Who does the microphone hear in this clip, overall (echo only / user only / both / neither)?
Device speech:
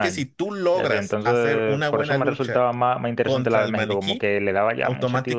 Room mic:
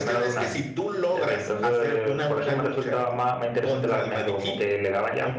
echo only